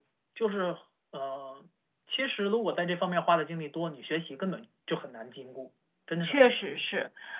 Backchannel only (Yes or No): No